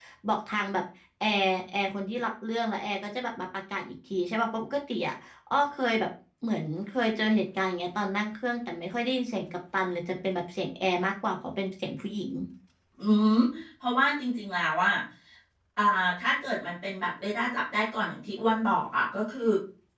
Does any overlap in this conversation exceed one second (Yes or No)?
No